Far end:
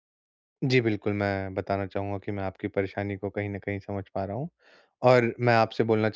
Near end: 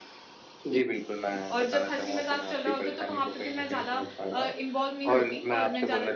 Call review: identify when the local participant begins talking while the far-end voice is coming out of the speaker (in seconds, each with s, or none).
1.5 s